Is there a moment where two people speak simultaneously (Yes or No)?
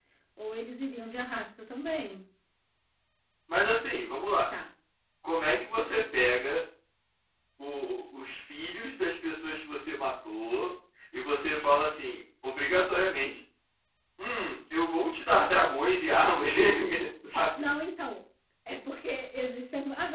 No